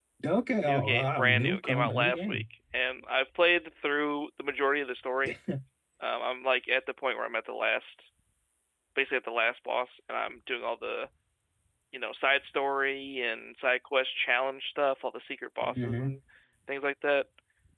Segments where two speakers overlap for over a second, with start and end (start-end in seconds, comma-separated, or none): 0.6-2.4